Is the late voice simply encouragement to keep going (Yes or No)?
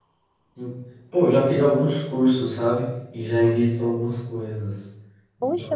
No